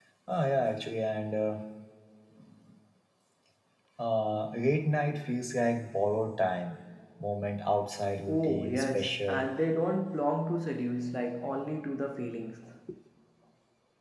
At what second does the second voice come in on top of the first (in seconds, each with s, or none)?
8.3 s